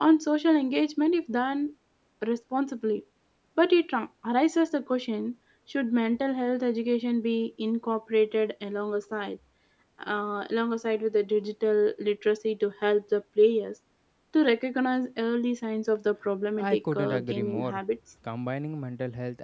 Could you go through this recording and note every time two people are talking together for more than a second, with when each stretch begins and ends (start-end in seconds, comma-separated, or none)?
16.6-17.8